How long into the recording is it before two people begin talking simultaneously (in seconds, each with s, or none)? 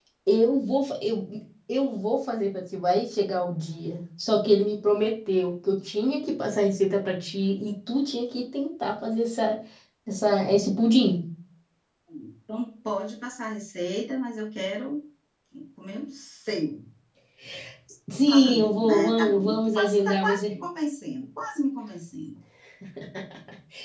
18.3 s